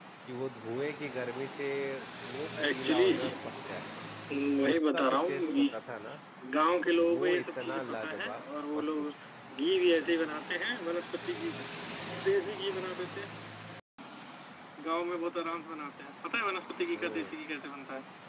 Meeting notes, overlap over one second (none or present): present